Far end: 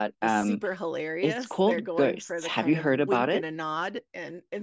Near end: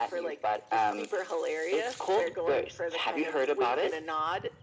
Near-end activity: none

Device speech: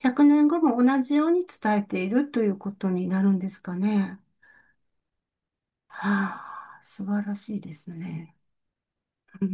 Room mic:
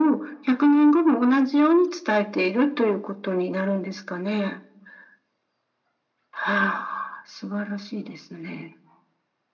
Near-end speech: none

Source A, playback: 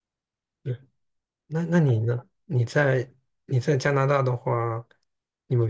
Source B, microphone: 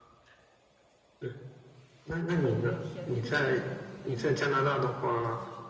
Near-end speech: present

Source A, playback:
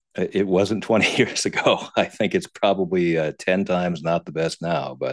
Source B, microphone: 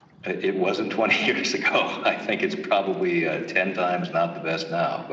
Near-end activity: none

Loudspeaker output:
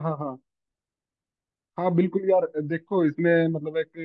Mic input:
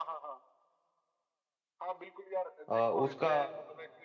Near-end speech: present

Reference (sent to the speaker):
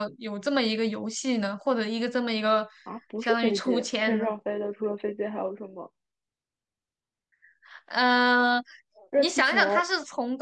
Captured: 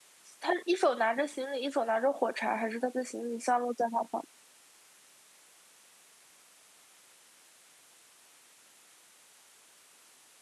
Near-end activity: present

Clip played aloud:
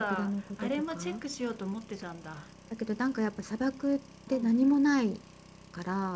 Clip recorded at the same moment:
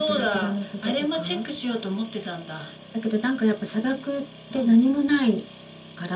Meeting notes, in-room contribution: none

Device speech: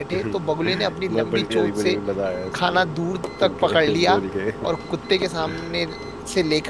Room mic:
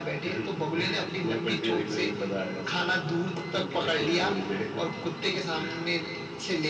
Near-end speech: none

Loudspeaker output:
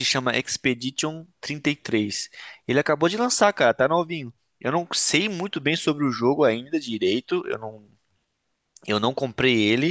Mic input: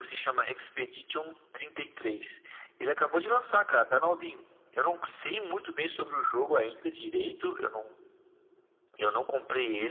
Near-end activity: none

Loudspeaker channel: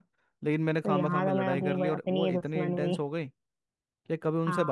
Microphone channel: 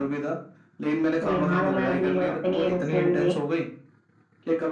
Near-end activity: none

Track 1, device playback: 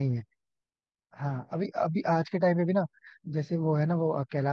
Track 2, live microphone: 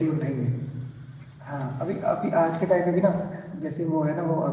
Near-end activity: none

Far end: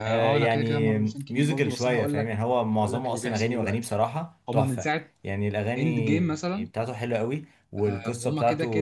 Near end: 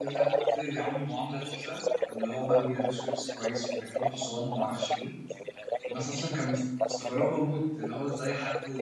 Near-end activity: present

